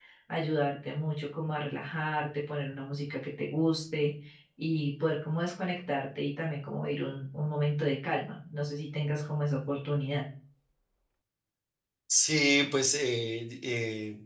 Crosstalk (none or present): none